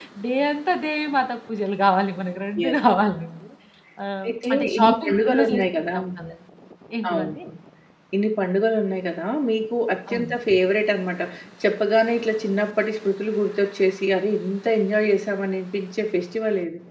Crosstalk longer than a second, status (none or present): present